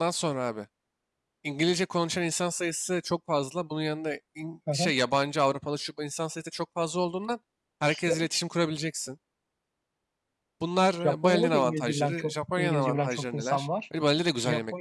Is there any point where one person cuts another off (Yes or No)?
Yes